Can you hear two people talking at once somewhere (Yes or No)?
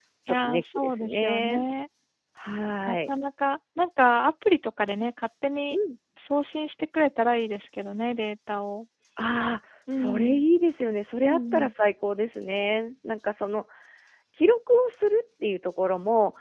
Yes